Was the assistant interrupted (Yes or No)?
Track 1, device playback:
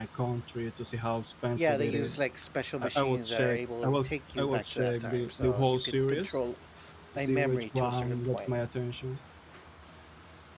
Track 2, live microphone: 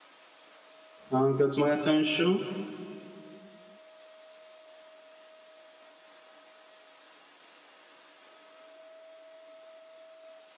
Yes